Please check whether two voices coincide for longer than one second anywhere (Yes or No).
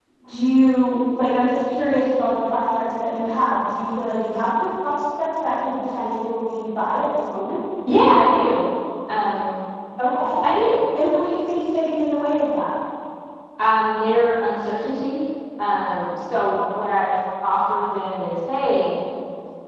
No